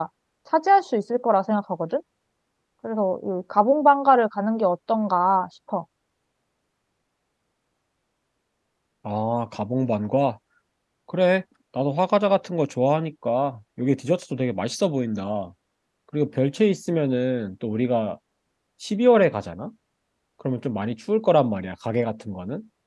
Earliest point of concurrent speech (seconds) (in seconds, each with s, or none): none